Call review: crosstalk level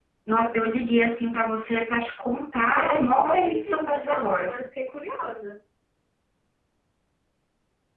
present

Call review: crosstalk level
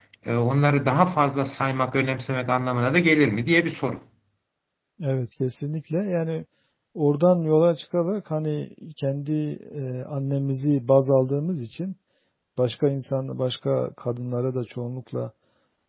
none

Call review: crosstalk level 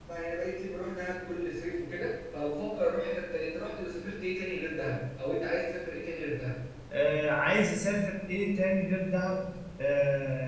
none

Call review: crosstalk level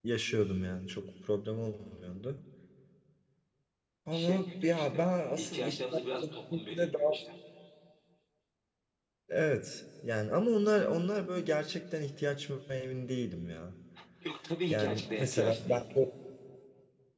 present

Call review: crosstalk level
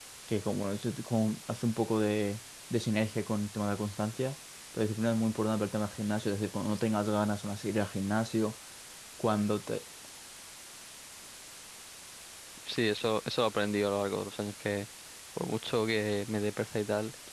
none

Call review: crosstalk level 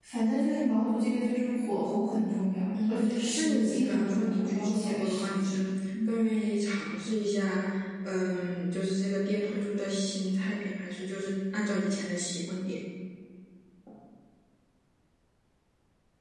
present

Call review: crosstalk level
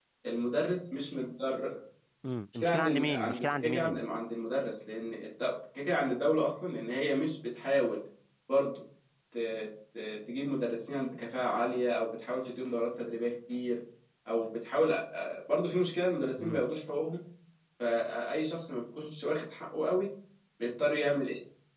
present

